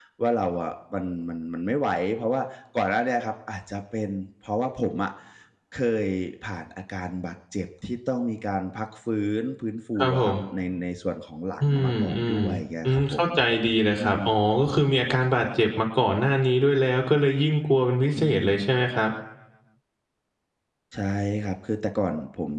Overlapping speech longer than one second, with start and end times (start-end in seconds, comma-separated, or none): 11.6-13.2